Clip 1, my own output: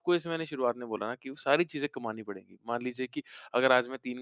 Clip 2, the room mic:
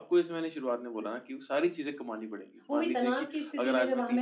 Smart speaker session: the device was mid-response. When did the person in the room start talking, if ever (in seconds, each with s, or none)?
2.7 s